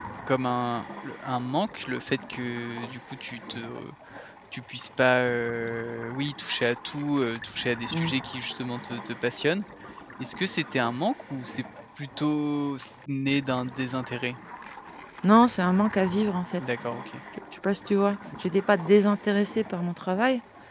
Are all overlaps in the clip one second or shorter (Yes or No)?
Yes